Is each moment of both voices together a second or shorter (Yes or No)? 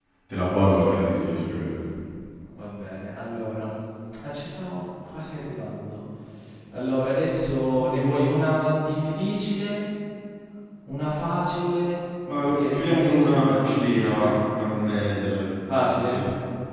No